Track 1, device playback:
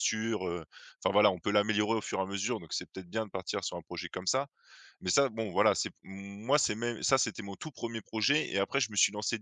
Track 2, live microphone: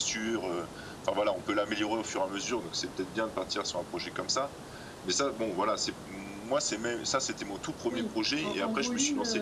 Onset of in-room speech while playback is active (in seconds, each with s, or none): 7.8 s